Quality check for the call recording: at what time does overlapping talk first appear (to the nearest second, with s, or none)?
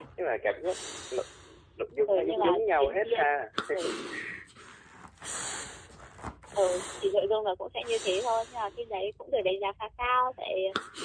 2 s